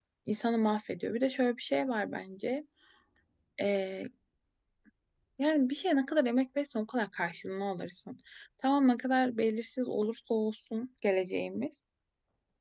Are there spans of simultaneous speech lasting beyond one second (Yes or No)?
No